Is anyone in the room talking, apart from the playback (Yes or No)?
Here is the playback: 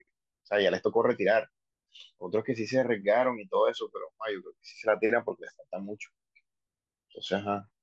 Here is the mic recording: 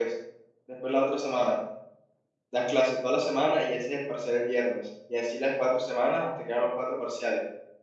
Yes